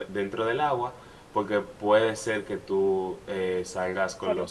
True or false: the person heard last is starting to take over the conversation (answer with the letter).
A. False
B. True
B